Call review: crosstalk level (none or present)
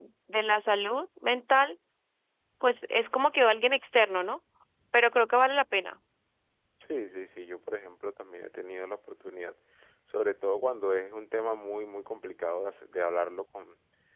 none